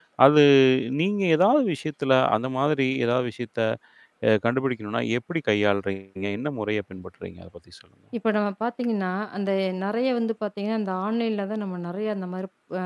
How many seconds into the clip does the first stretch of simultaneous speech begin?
none

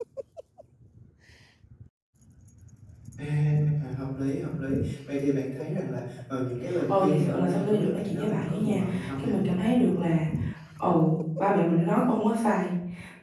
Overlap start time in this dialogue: 6.7 s

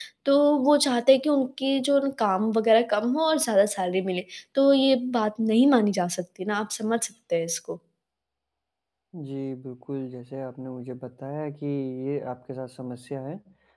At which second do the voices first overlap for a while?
none

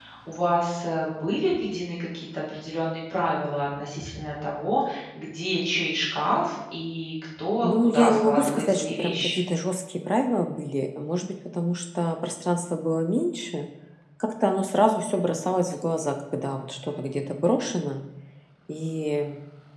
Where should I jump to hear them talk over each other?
7.6 s

